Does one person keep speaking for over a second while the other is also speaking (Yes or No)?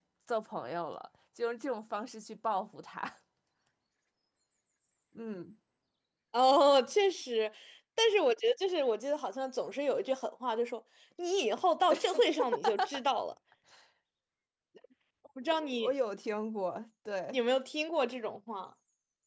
No